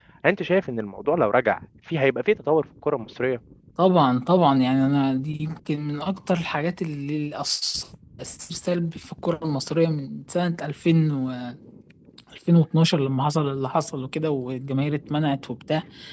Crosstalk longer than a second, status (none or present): none